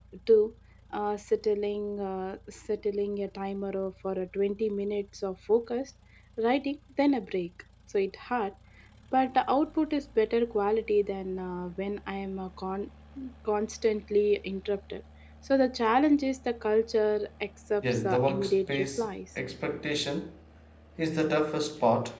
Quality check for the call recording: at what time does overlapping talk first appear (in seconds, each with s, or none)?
17.8 s